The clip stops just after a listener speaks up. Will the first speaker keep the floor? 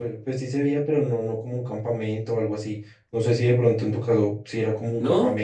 No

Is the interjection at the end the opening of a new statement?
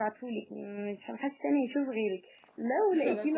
No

